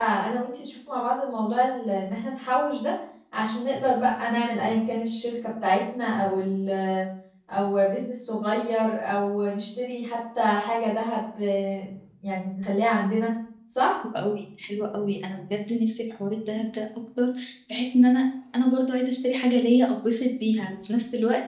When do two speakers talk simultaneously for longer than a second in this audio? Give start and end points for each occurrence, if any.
none

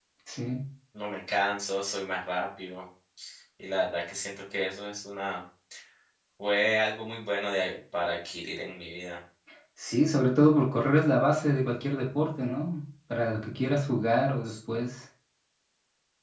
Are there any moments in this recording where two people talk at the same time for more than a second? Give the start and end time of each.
none

